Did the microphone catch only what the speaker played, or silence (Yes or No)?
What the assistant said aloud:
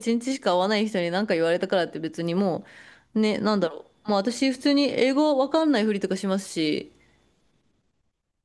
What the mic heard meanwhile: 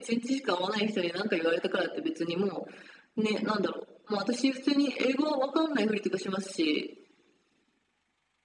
Yes